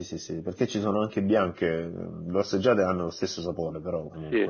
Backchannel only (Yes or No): No